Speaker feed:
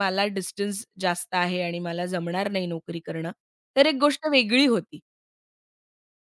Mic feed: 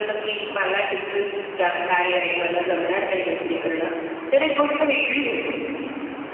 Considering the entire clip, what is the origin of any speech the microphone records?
echo only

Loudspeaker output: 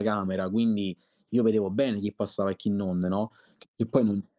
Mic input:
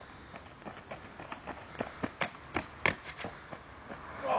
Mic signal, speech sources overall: neither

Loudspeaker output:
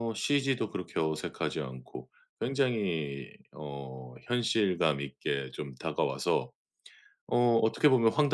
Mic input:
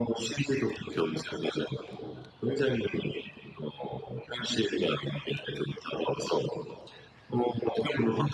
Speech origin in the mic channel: echo only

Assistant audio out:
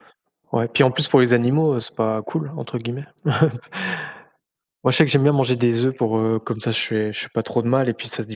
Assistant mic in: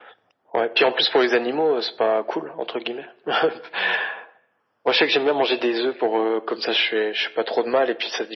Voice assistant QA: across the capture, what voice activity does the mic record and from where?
echo only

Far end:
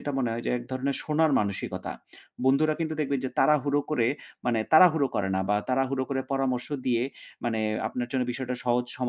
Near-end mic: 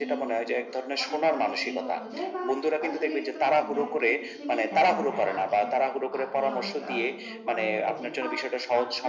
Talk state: both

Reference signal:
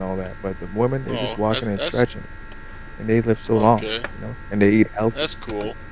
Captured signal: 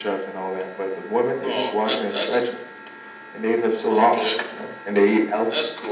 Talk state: echo only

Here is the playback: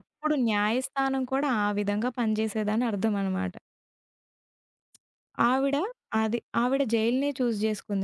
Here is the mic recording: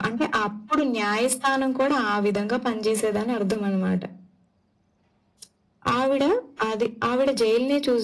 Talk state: echo only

